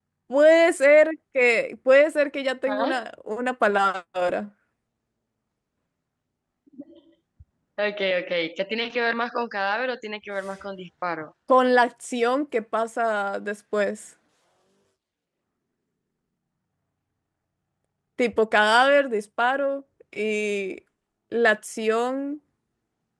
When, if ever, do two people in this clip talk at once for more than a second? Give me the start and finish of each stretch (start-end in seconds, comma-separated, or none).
none